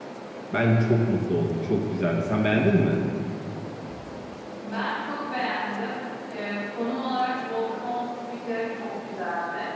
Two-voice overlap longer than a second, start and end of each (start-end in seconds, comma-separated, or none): none